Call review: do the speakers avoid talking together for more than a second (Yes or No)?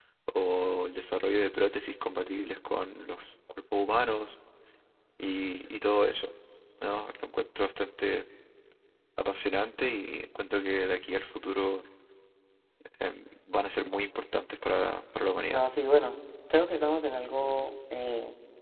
Yes